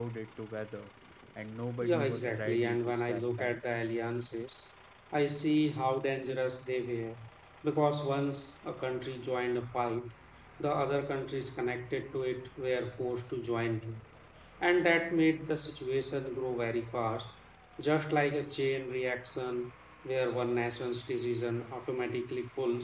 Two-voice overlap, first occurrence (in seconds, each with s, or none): 1.8 s